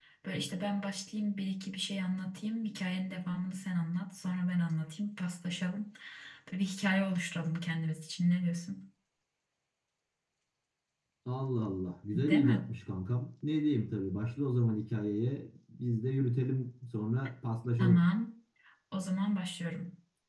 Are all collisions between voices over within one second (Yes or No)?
Yes